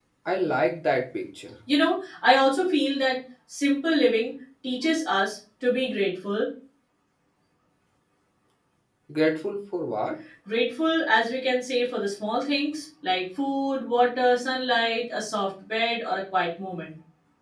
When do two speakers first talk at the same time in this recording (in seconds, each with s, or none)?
none